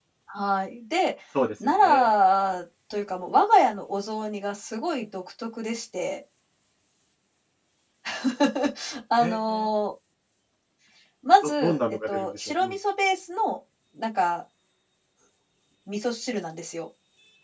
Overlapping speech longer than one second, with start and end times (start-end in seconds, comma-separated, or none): 11.4-12.8